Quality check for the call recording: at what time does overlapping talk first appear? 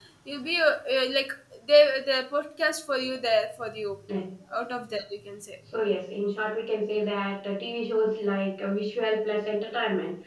none

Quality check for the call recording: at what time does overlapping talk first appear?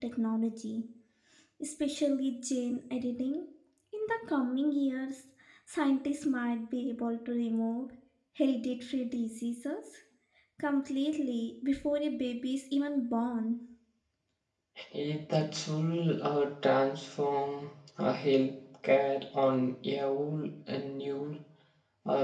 none

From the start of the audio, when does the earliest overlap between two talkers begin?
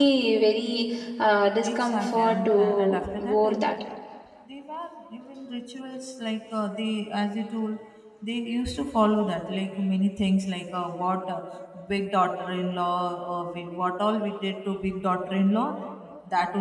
2 s

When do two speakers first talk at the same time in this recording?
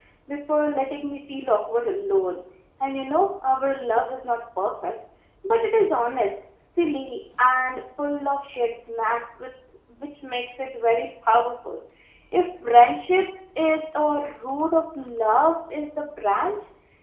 none

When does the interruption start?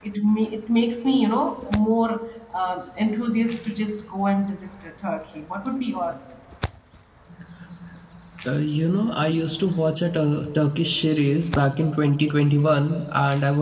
none

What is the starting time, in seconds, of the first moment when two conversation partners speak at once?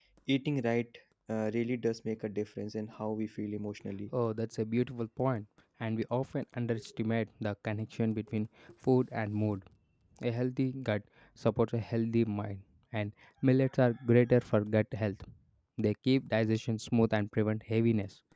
none

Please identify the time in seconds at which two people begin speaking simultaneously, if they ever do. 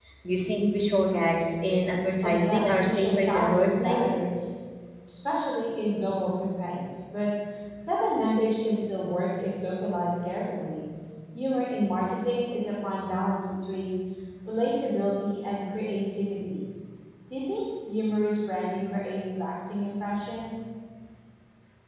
2 s

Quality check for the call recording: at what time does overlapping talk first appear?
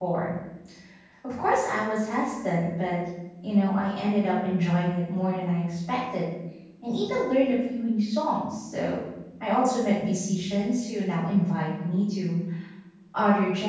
none

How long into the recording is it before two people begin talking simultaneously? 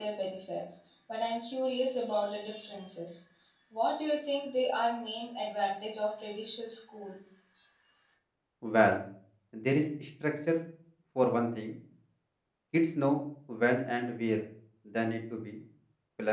none

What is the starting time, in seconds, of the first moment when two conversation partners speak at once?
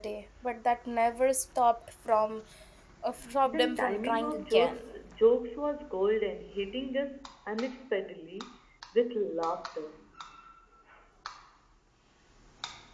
3 s

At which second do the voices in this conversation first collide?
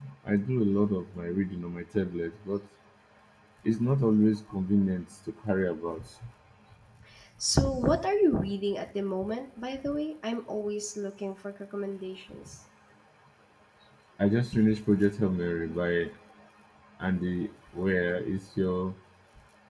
none

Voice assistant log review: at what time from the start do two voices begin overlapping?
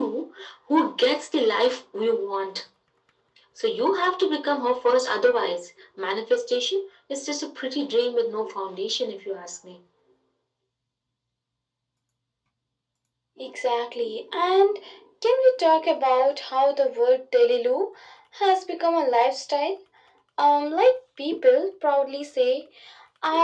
none

